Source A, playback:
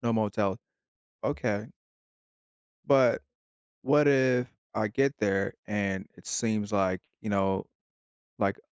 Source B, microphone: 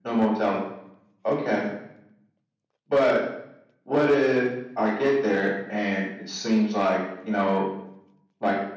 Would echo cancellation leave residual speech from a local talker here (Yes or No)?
No